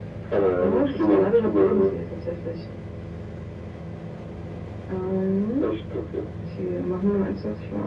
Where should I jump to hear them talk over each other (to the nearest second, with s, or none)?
1 s